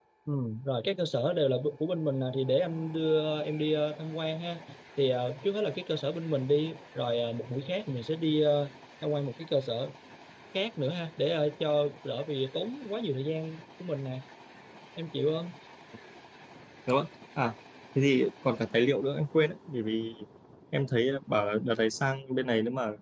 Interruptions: none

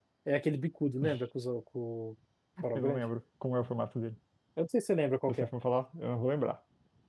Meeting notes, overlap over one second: none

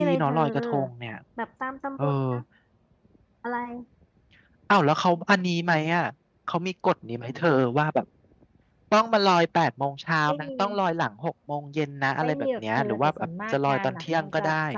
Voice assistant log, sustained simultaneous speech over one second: present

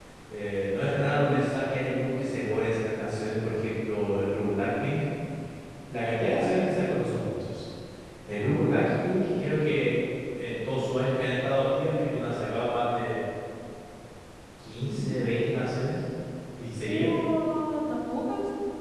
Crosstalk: present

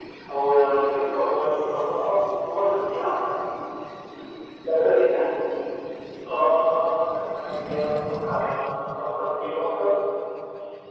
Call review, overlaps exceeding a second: none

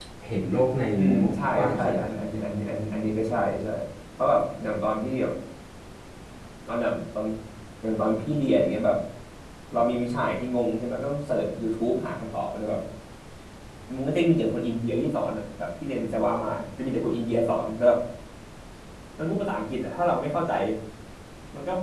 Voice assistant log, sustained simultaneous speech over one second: present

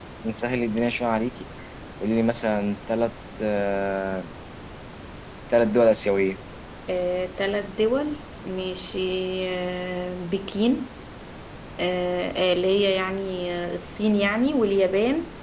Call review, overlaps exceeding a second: none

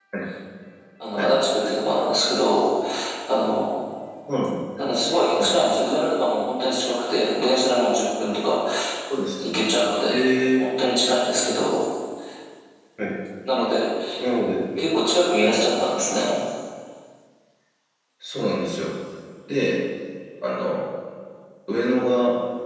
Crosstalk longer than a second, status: none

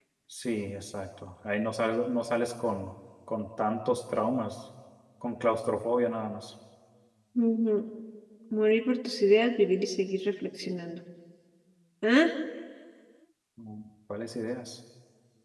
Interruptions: none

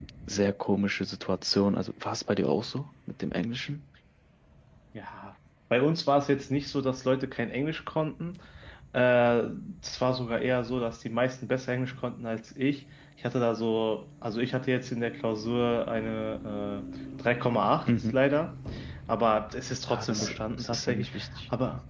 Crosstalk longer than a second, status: present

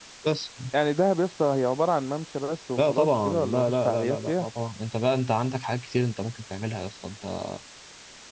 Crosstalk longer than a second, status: present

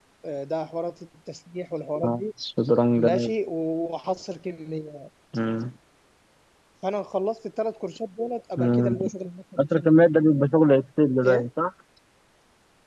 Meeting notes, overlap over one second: none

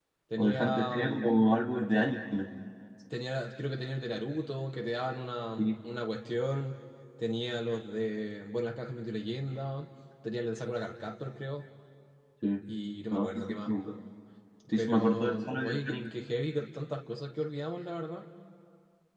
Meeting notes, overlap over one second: present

